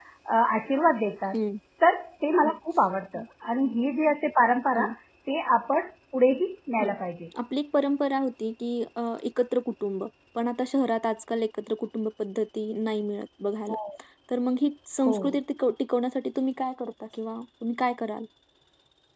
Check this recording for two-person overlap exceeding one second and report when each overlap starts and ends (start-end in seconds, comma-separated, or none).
none